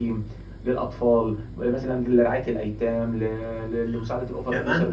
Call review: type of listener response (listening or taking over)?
taking over